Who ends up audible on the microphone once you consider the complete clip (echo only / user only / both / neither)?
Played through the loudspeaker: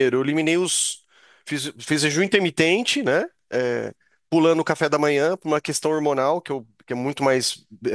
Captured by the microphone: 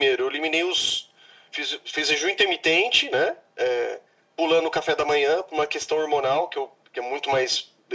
echo only